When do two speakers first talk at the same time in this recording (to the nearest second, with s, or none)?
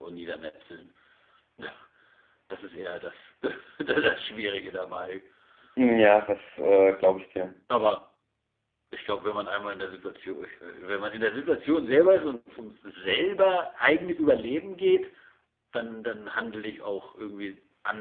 none